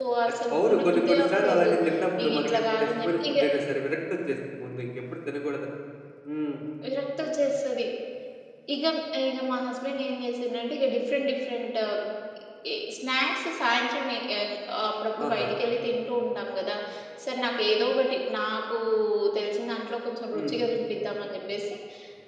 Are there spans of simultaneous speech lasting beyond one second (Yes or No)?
Yes